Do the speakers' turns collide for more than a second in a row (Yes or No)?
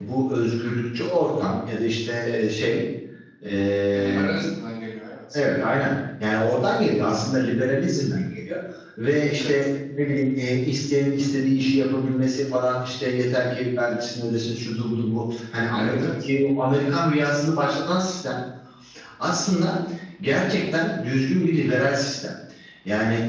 No